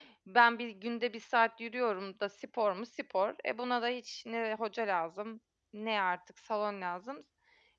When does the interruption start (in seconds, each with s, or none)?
none